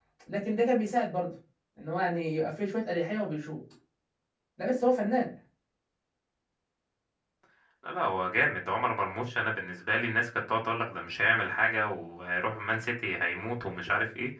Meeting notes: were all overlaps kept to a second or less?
Yes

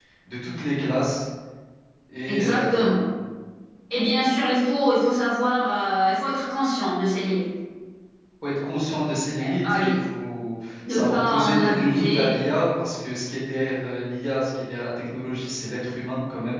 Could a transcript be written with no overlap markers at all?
No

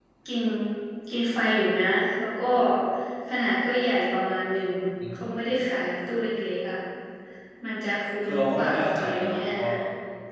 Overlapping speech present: Yes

